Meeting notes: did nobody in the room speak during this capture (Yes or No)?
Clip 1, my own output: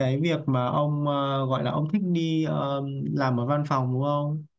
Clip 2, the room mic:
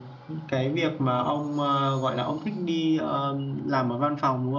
Yes